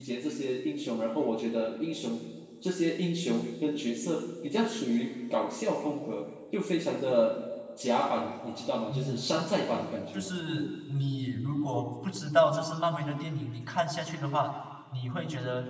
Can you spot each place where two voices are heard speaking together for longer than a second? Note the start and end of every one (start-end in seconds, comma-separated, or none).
none